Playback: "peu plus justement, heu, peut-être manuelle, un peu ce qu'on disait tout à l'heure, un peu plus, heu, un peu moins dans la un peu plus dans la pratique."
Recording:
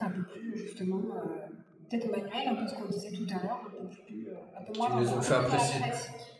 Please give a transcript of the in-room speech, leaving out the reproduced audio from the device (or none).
Qui me les ont fait apprécier.